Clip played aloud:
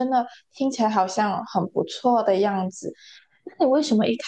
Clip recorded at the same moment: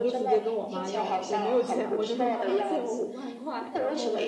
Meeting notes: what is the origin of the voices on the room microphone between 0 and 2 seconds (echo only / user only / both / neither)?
both